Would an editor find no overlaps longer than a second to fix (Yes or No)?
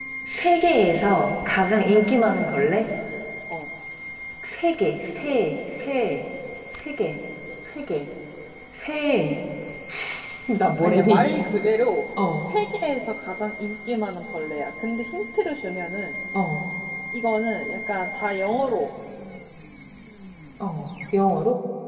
Yes